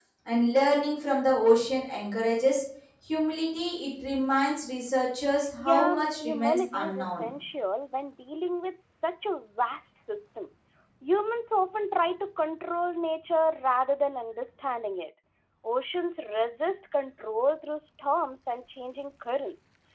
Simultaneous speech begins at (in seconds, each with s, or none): 5.6 s